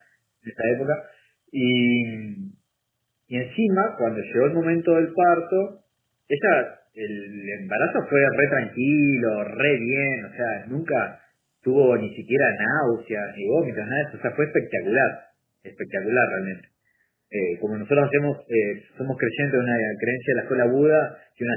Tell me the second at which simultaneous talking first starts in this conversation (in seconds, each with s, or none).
none